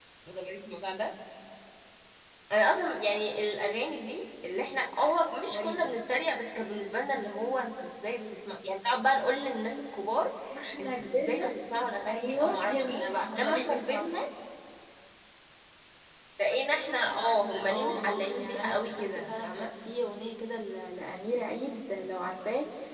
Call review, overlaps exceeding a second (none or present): present